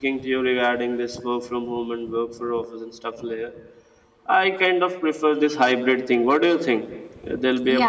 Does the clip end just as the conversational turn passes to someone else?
Yes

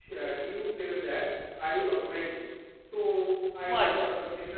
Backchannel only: Yes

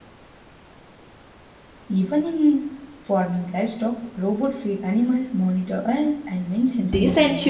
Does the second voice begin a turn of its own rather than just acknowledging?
Yes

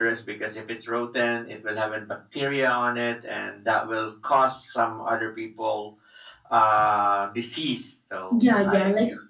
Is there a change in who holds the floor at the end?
Yes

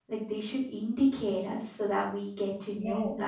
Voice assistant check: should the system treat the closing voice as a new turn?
Yes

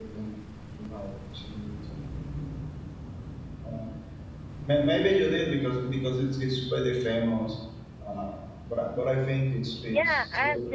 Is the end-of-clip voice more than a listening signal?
Yes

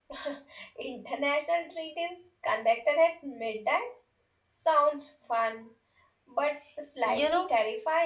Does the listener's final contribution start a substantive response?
Yes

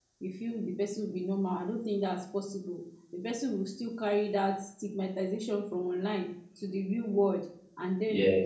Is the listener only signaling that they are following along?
Yes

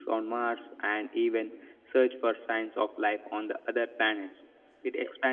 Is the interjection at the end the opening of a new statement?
No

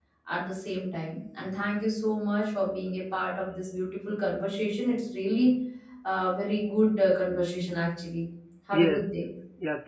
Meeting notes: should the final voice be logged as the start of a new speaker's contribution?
Yes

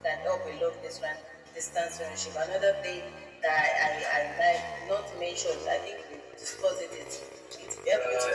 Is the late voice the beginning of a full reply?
Yes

